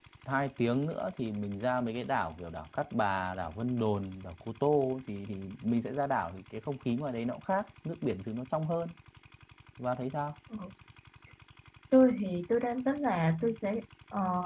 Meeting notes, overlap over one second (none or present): none